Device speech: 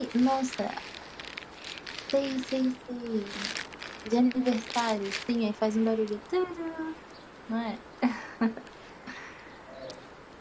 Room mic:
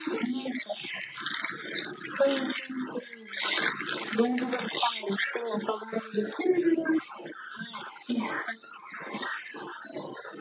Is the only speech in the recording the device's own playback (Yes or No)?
Yes